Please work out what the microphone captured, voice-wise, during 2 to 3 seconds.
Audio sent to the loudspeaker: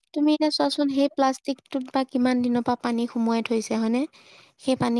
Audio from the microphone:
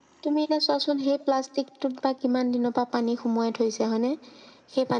echo only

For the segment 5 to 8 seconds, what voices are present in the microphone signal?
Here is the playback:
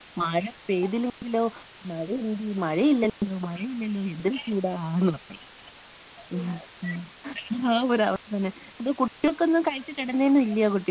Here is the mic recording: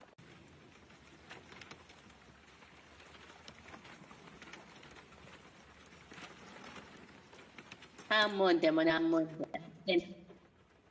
neither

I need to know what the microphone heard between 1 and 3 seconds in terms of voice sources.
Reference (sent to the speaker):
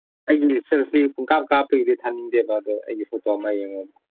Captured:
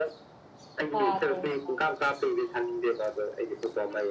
both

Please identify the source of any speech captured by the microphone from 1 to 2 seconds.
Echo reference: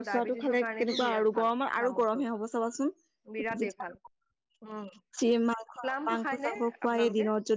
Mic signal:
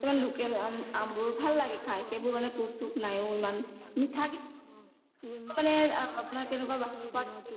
both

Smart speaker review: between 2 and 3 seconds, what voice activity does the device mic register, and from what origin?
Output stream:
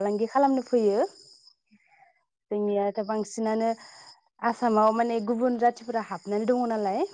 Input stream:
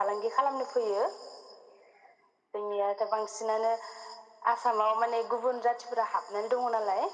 echo only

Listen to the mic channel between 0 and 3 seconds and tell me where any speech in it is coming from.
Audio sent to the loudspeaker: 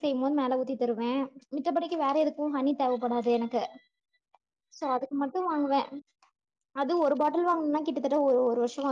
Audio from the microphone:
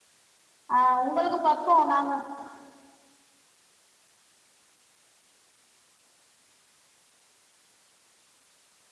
user only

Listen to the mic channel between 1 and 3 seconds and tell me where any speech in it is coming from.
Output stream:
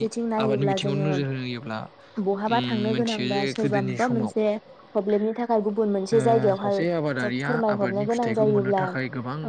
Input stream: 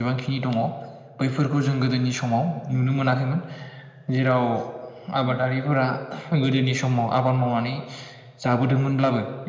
user only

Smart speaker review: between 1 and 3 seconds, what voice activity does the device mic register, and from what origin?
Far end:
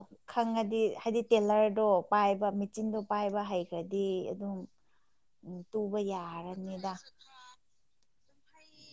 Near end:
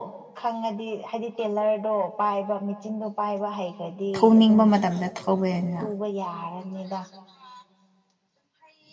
echo only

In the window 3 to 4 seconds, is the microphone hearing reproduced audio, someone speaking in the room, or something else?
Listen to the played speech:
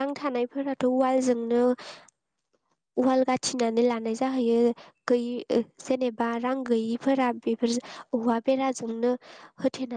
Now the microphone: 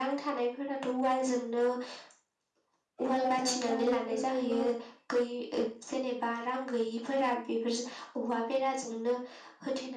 both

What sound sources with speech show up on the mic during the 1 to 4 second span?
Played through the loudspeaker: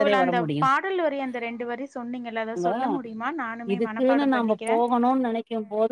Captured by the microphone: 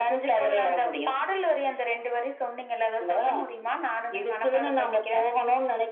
echo only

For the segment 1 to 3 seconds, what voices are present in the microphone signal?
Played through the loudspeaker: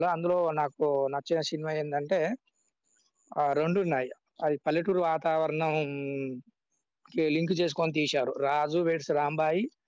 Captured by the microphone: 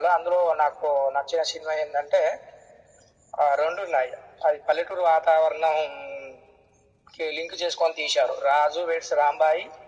echo only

